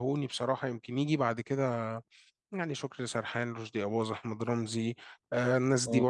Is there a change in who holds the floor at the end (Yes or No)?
No